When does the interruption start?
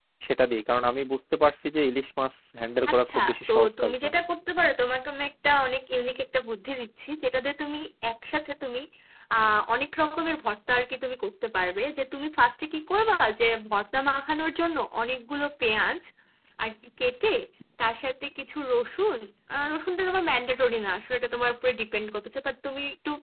3 s

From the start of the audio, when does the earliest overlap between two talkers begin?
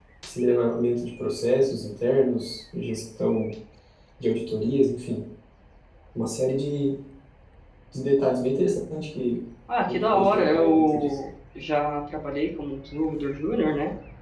10 s

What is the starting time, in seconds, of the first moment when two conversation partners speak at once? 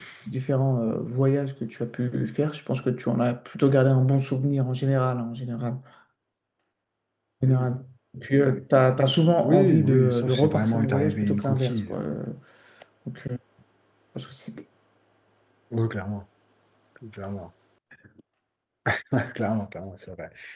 9 s

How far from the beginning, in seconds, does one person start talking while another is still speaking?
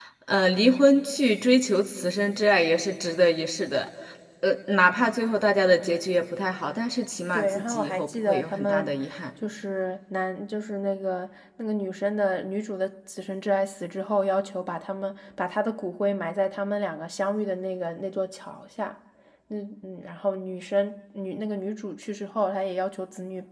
7 s

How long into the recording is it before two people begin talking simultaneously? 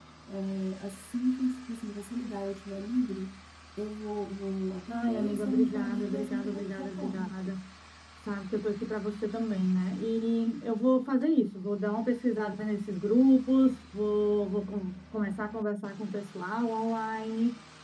5 s

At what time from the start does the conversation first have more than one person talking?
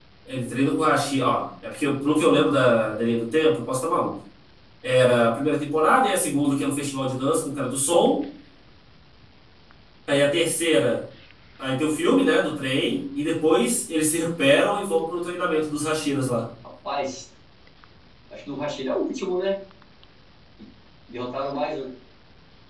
none

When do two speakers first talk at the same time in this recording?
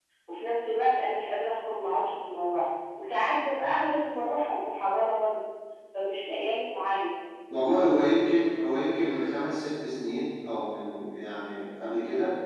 none

